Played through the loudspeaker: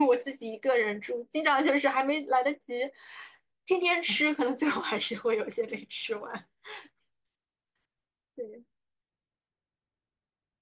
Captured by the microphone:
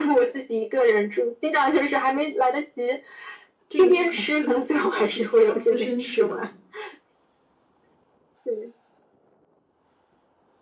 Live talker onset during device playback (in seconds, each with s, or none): 3.7 s